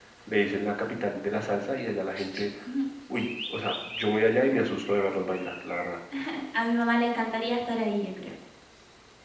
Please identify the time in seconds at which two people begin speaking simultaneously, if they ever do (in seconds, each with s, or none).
none